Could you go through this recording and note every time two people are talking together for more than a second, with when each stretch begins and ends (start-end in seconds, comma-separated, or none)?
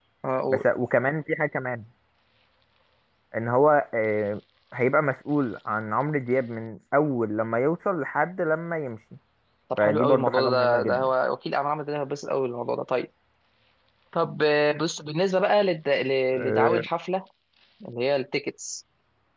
9.8-11.1